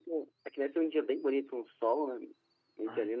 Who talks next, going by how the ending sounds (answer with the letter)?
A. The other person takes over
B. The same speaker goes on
B